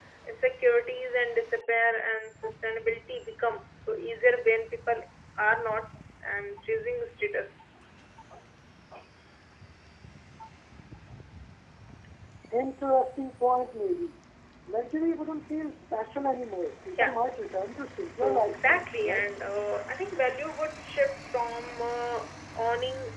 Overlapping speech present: Yes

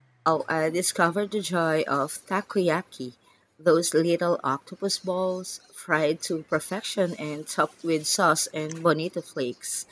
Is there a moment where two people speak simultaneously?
No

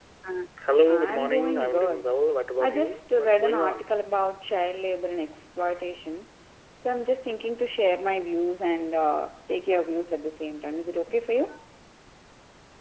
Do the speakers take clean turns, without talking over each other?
No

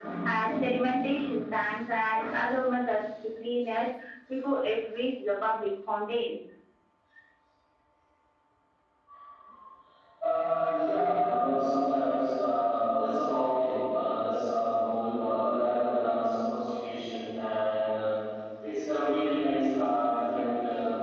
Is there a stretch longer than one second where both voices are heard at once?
No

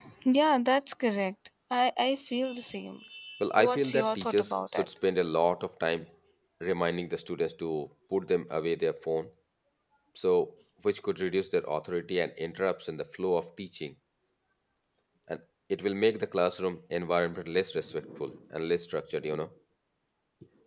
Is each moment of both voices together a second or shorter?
No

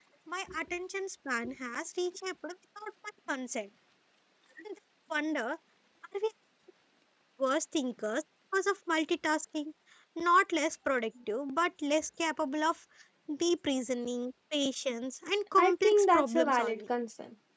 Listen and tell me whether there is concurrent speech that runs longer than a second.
Yes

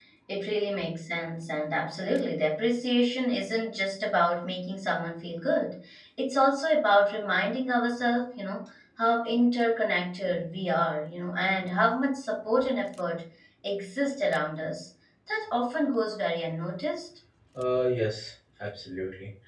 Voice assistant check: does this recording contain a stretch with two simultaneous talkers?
No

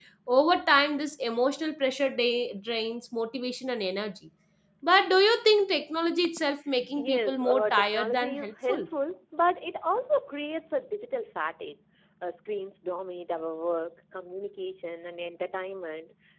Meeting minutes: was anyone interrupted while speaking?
Yes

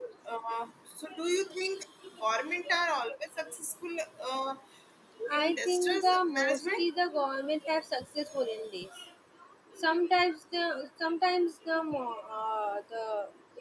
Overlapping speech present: Yes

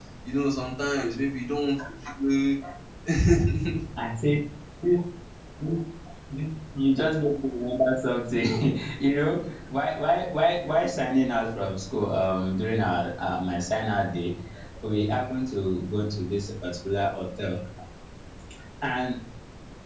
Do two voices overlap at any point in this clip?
No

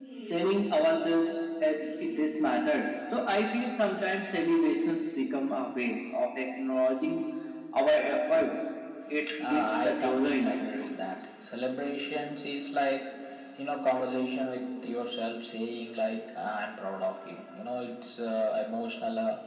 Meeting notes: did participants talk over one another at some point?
Yes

